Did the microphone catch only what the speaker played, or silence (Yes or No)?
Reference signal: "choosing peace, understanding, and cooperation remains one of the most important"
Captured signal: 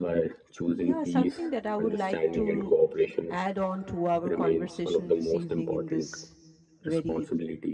No